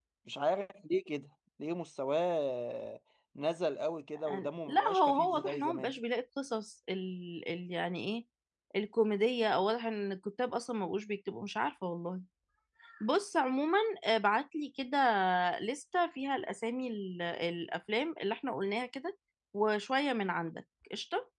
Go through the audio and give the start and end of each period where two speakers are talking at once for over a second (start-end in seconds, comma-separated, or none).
4.2-5.9